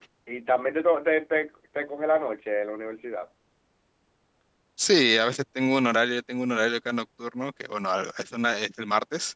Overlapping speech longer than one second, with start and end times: none

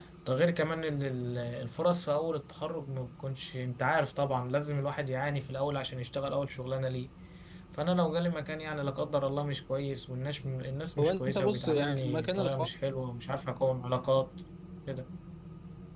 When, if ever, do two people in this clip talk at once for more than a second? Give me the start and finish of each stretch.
11.0-12.7

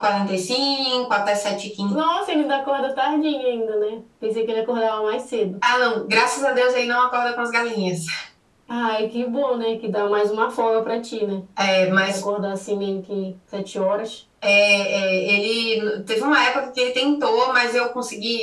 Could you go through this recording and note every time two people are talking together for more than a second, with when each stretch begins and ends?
none

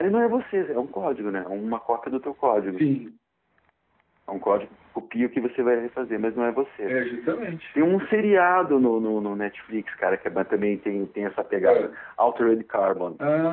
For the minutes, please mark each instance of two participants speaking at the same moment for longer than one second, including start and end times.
none

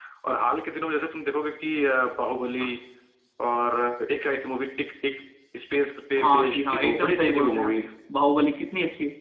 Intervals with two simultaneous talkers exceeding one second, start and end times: 6.2-7.7

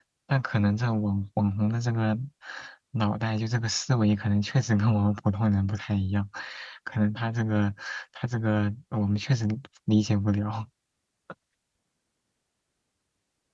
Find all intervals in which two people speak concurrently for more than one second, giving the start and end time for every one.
none

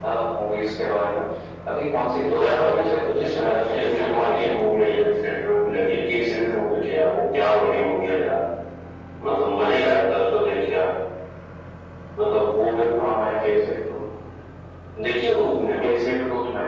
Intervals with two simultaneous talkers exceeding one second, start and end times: 2.4-4.6

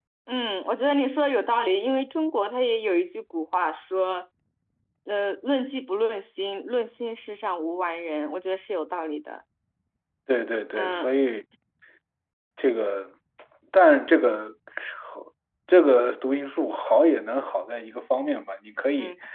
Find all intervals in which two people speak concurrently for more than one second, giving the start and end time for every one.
none

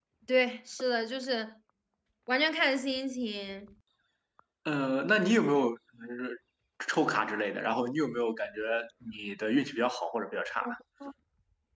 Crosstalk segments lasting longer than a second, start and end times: none

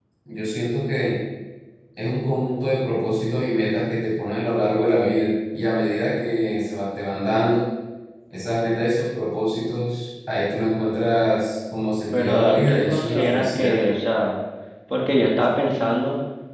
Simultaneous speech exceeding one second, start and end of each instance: 12.1-13.8

